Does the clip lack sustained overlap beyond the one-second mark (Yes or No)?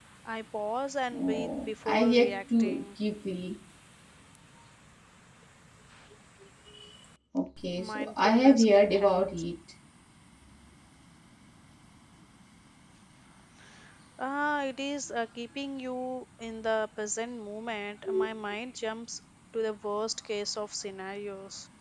No